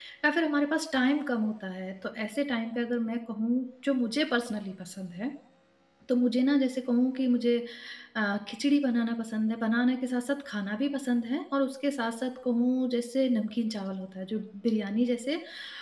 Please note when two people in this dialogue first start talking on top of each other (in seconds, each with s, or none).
none